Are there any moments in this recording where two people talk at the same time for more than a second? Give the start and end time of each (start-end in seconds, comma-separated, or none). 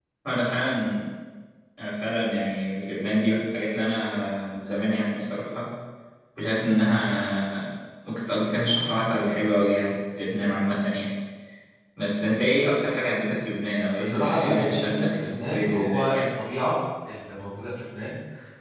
14.0-16.2